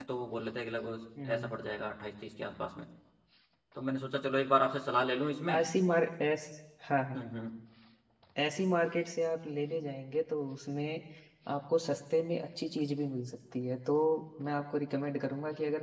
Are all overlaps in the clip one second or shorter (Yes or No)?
Yes